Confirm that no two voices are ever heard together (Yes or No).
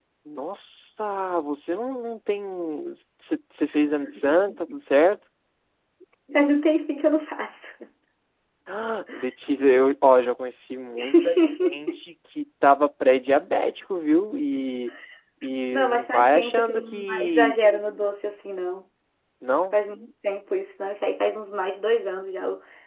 No